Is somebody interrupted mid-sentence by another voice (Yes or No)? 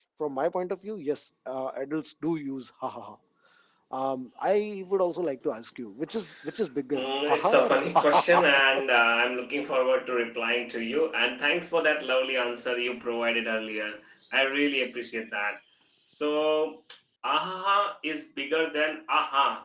Yes